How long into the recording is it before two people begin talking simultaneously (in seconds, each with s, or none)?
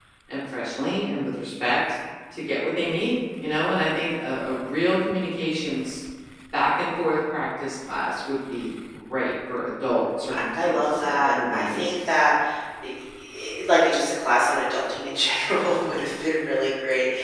10.3 s